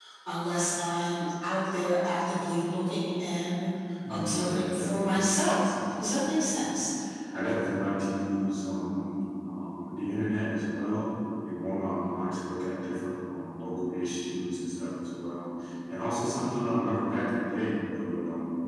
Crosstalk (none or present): present